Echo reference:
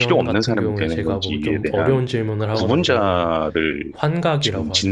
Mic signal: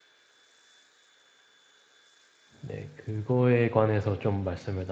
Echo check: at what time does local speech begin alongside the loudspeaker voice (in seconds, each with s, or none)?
2.6 s